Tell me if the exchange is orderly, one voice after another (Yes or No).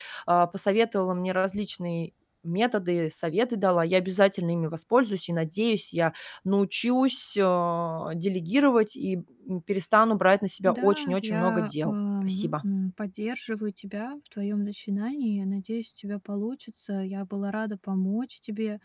No